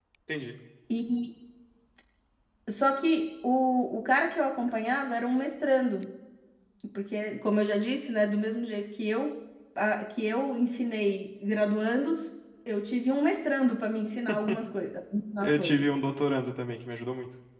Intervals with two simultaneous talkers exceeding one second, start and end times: none

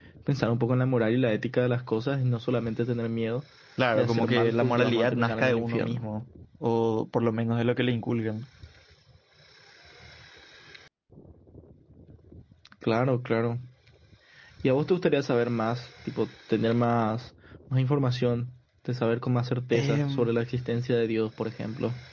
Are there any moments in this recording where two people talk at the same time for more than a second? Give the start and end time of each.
4.0-6.0

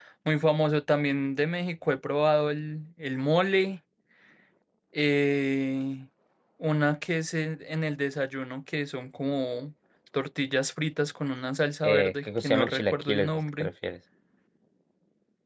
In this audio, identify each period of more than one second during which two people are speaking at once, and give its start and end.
11.8-13.7

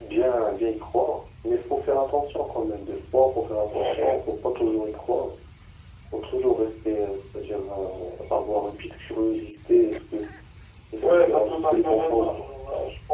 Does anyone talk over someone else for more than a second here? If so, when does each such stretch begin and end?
11.0-12.4

